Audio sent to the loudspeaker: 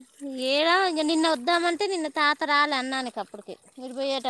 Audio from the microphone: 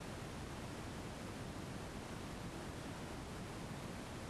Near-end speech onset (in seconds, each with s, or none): none